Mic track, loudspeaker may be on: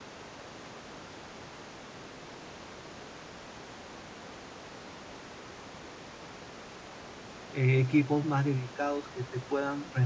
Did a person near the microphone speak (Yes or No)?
Yes